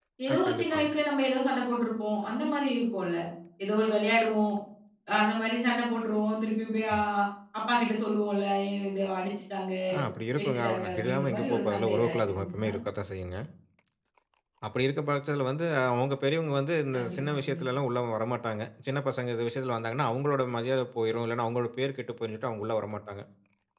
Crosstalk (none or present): present